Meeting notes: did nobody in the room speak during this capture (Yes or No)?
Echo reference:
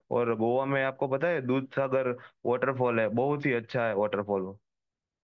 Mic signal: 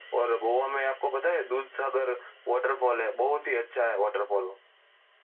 Yes